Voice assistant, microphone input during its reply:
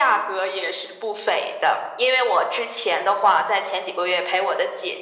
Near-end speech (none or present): none